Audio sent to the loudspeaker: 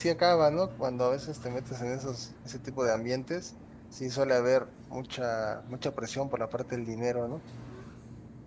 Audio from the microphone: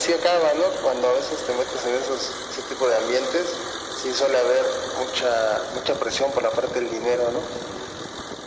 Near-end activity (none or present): none